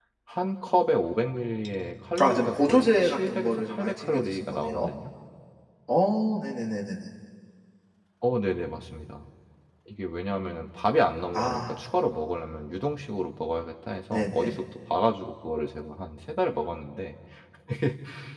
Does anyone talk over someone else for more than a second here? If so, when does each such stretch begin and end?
2.2-4.9

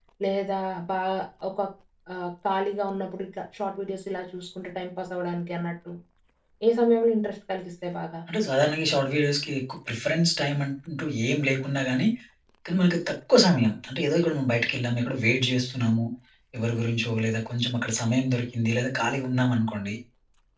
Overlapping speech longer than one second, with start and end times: none

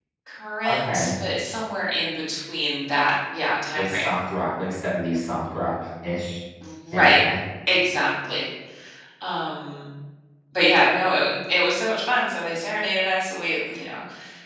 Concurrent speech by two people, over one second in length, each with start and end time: none

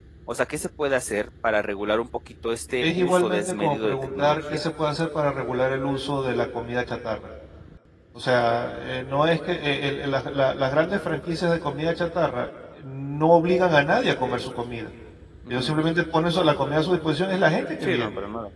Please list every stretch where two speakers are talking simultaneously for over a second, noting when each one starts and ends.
2.8-4.6

